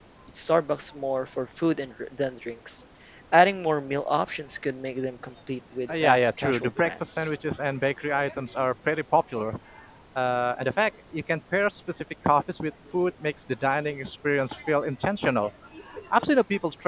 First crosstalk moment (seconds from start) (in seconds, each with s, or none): 5.9 s